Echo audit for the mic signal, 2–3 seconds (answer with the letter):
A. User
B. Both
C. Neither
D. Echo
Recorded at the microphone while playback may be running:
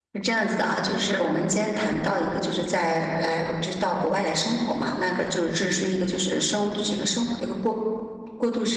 A